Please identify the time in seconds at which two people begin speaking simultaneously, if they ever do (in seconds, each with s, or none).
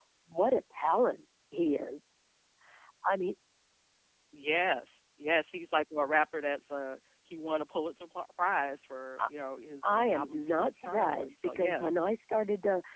9.8 s